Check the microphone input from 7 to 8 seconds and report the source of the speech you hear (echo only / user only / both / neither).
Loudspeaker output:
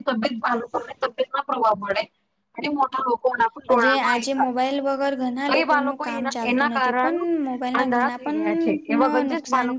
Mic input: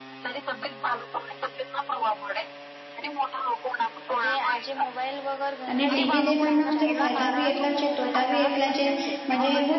both